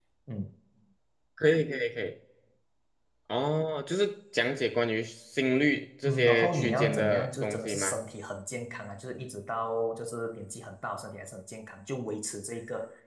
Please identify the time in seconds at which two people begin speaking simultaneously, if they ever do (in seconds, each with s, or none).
6.0 s